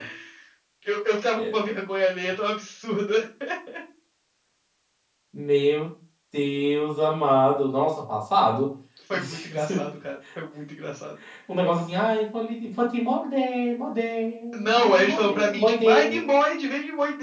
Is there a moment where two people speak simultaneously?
Yes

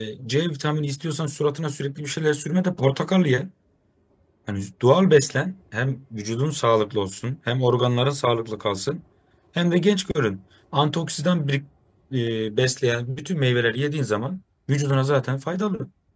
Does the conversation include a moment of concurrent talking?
No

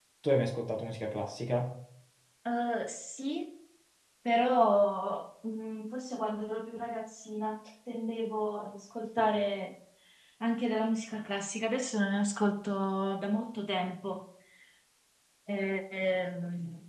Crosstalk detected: No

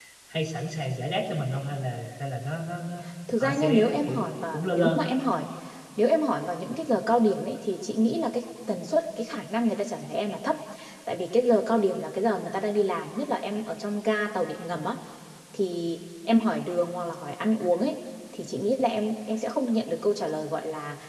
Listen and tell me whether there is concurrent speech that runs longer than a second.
Yes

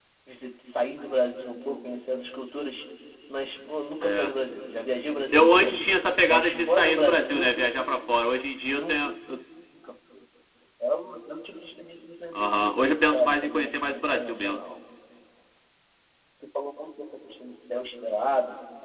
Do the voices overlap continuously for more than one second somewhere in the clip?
Yes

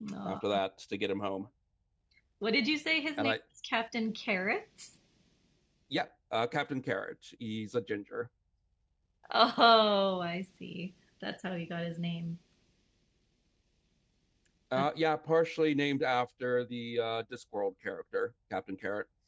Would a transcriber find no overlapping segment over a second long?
Yes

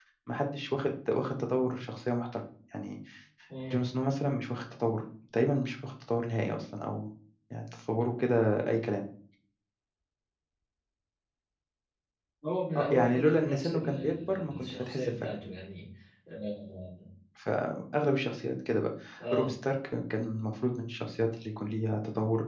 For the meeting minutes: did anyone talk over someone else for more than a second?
Yes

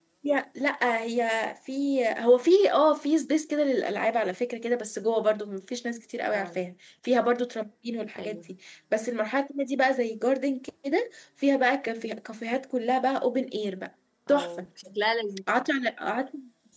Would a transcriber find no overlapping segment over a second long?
Yes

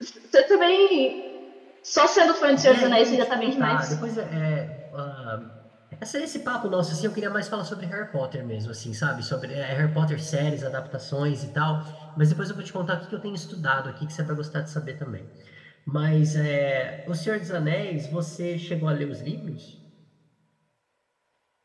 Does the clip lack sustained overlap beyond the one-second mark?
No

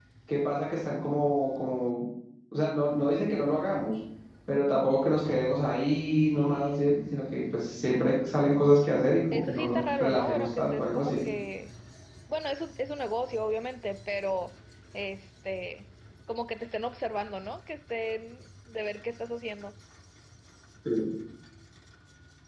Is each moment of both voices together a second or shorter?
No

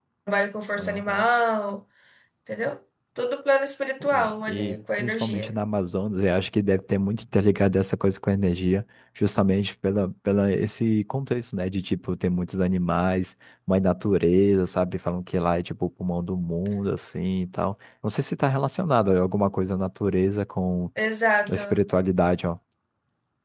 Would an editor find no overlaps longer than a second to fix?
No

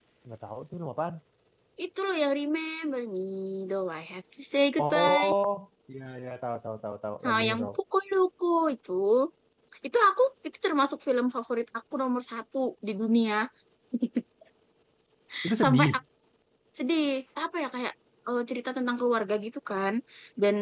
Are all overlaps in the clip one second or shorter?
Yes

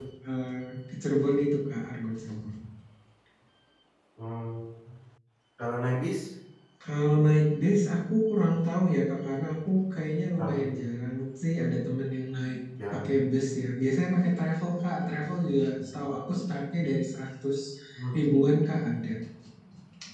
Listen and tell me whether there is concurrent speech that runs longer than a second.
No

